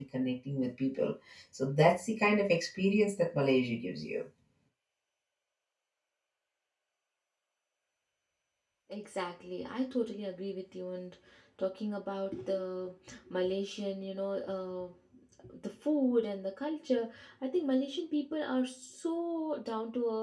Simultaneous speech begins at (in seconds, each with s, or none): none